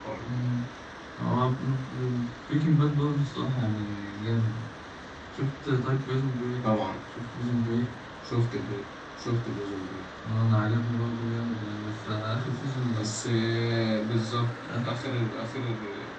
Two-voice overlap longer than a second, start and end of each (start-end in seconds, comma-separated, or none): none